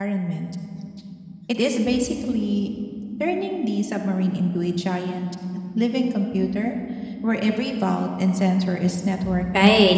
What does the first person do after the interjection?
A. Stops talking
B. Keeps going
A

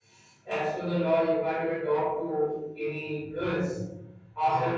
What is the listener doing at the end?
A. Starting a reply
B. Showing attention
B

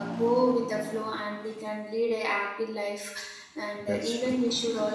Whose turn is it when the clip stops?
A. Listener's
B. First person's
B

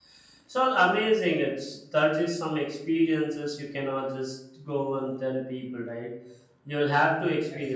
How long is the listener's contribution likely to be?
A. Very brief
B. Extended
A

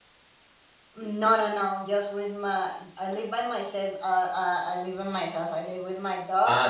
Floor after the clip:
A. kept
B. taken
B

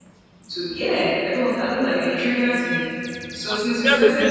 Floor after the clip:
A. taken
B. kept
A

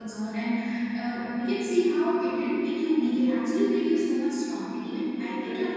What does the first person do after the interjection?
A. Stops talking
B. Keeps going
B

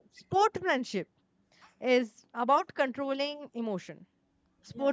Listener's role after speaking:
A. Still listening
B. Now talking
A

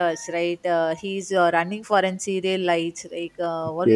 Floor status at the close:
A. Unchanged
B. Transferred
A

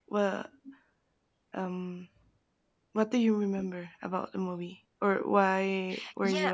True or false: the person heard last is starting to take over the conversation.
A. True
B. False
A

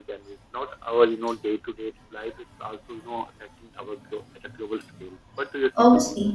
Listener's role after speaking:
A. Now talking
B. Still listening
A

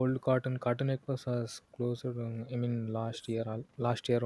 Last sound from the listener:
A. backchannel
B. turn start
A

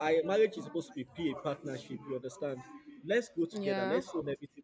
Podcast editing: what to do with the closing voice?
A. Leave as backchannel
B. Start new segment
A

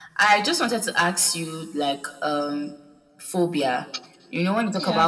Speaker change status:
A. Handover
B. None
B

